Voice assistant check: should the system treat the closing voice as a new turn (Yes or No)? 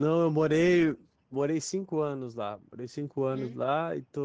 No